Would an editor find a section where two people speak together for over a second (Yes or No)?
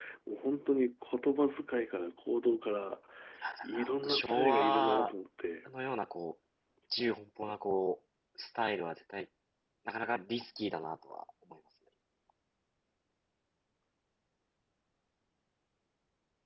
Yes